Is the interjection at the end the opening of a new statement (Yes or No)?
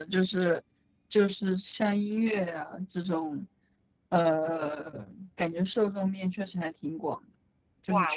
Yes